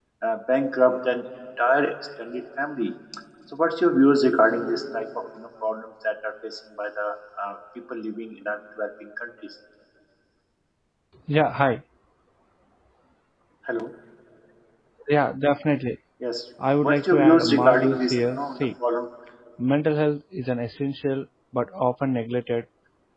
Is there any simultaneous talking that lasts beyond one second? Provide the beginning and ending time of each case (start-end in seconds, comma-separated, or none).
16.8-18.6